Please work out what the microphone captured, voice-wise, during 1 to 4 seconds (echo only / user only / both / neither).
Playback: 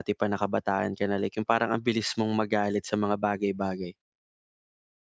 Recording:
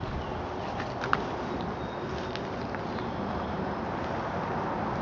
neither